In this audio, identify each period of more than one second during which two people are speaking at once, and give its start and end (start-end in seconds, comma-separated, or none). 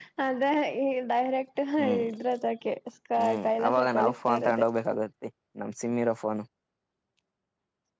3.2-4.6